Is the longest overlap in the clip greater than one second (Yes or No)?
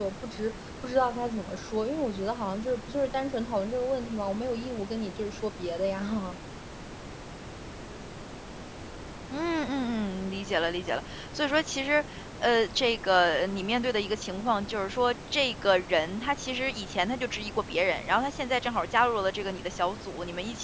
No